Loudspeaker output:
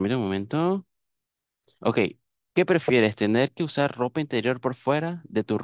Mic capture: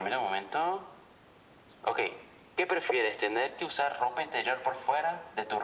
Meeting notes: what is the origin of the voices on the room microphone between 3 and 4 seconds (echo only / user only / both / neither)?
echo only